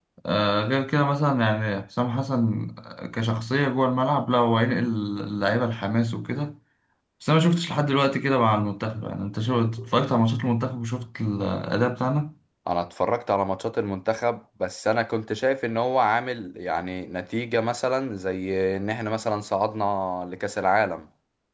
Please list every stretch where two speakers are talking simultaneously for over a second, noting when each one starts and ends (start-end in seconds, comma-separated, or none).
none